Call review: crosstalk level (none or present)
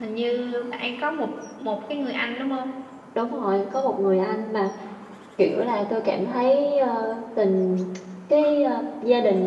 none